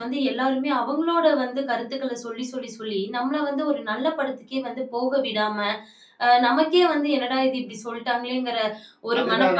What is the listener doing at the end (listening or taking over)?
taking over